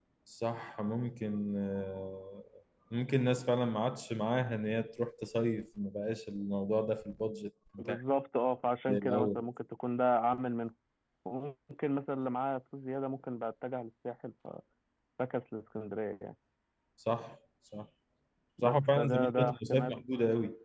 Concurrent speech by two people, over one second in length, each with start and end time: 18.6-19.9

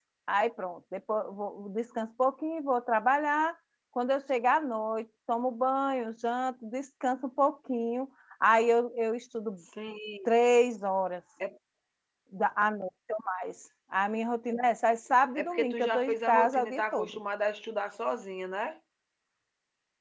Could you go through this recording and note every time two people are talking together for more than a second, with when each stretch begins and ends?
15.4-17.2

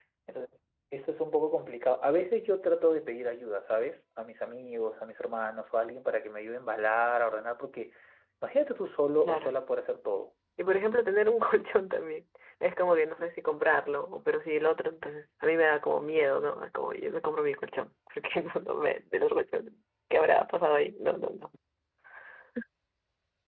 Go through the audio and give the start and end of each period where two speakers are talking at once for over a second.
none

